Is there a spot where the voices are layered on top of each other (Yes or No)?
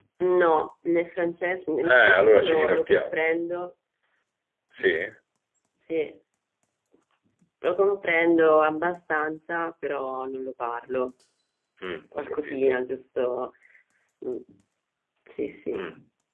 Yes